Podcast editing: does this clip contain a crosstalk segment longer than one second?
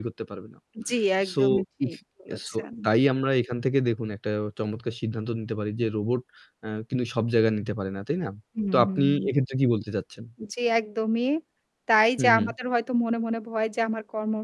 No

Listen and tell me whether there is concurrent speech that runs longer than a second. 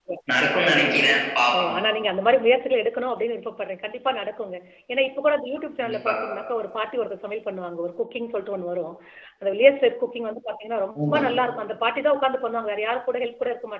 No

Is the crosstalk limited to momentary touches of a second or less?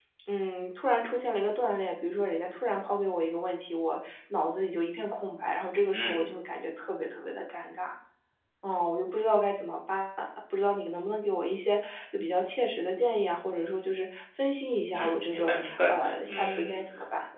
No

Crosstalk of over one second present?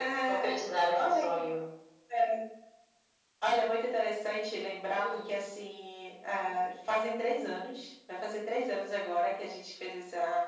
No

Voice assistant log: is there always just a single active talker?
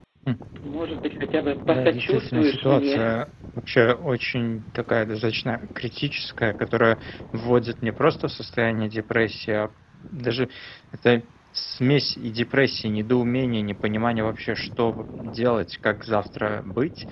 No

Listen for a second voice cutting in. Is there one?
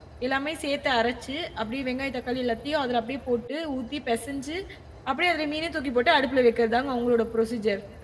No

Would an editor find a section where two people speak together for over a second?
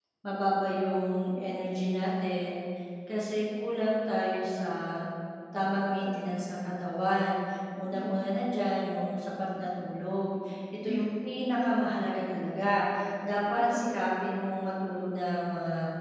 No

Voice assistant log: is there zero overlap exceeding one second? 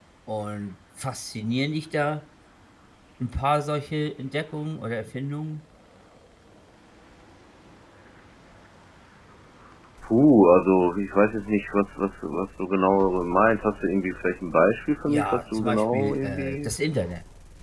No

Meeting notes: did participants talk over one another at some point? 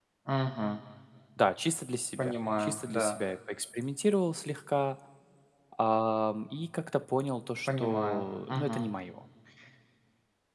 Yes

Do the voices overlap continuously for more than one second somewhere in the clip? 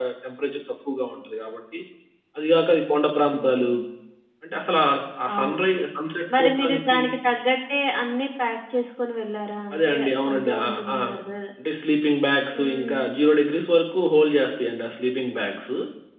Yes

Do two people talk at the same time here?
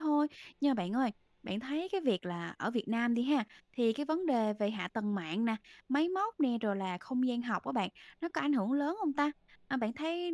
No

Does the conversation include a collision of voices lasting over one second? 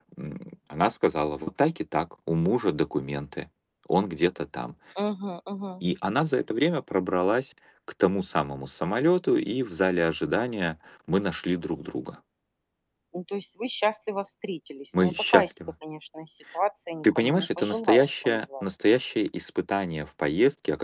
Yes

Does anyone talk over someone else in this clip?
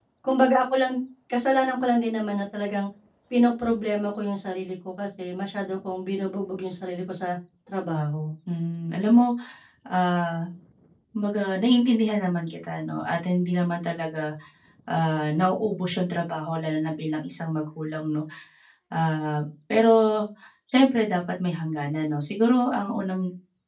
No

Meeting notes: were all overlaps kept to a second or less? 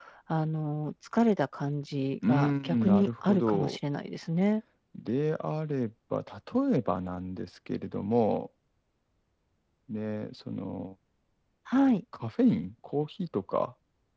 No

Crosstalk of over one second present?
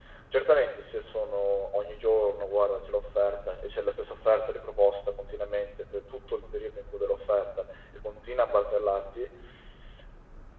No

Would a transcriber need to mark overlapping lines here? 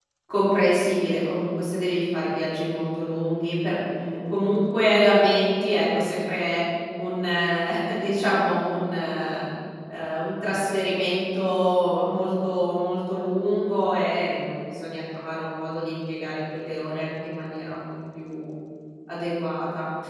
No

